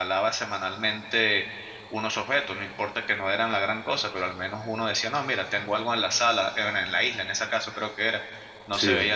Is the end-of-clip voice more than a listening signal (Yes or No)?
No